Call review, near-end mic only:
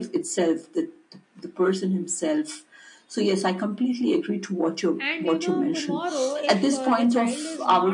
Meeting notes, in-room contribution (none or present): present